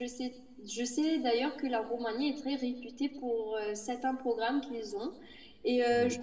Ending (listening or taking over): listening